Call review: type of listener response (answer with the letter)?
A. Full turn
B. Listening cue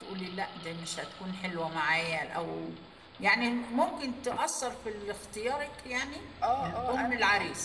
A